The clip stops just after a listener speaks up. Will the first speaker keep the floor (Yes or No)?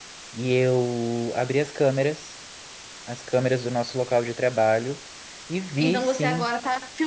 No